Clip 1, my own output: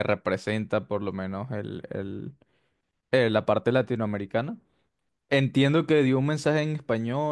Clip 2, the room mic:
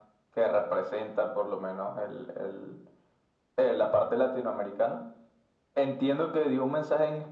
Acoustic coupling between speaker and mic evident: Yes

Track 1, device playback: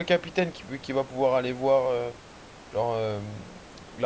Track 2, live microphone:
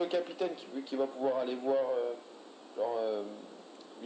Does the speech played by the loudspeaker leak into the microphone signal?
Yes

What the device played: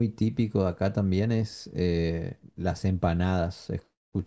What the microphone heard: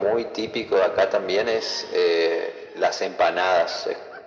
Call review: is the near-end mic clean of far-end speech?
No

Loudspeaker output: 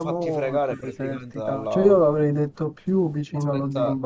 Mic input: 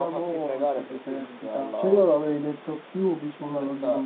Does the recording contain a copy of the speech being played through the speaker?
Yes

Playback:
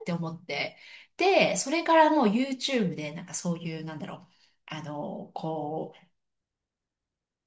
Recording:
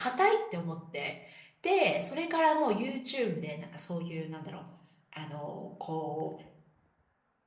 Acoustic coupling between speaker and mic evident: Yes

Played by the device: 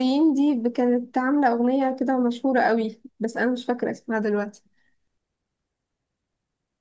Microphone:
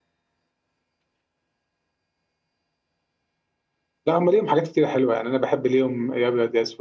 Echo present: No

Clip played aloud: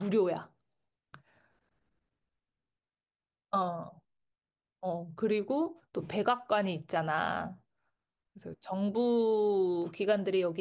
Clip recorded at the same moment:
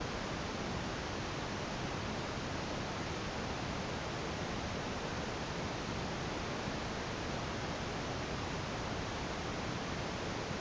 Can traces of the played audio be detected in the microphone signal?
No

